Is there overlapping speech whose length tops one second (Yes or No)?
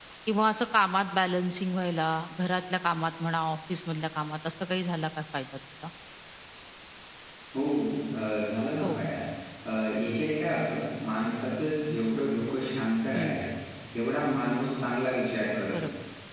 No